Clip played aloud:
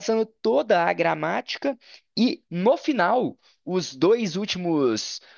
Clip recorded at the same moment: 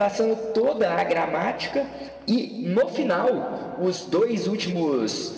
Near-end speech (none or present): none